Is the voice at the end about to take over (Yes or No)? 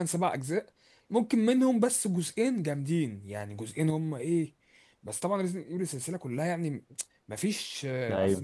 No